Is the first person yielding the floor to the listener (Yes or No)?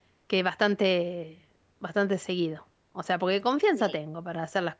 No